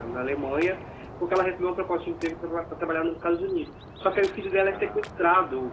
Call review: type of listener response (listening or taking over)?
listening